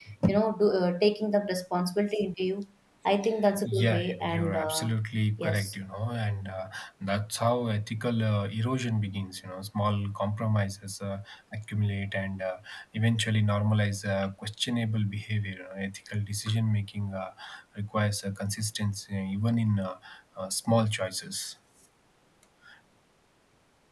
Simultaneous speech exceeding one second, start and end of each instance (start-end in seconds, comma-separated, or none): 3.6-4.9